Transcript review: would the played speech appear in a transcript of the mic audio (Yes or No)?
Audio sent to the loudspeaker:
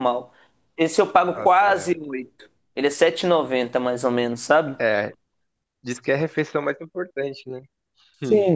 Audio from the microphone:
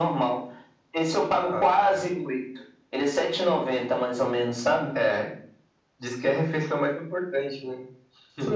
Yes